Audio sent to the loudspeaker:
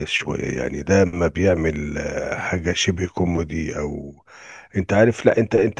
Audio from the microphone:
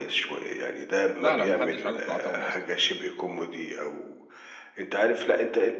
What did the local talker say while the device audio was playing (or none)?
لا لا ما حدش عاجبه في العتاوله اصلا